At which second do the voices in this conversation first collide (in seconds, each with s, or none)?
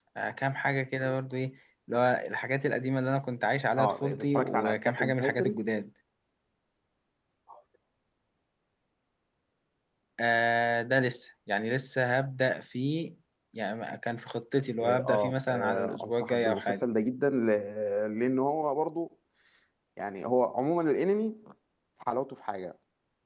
3.8 s